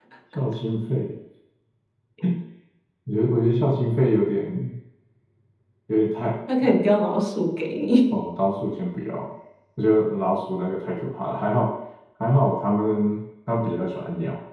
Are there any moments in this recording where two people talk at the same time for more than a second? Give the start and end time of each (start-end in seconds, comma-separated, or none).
none